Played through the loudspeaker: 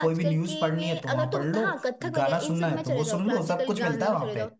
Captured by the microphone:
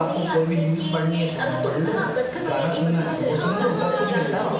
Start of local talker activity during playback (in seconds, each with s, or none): 2.8 s